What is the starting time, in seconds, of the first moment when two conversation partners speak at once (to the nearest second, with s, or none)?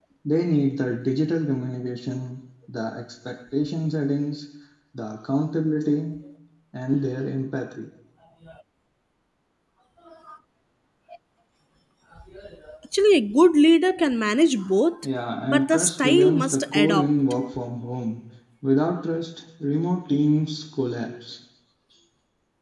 15 s